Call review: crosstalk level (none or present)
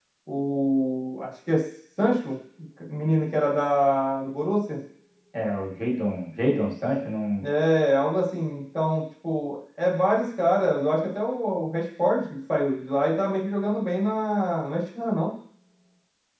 none